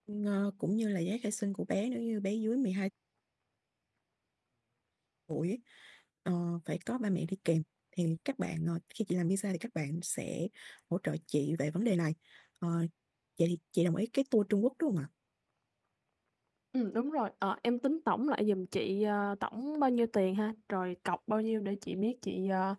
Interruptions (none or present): none